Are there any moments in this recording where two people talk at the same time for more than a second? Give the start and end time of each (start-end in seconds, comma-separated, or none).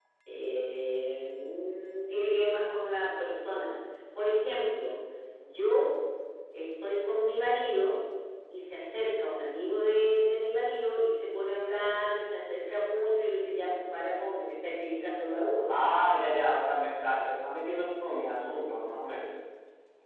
none